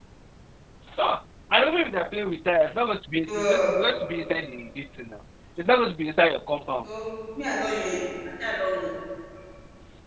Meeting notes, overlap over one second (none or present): none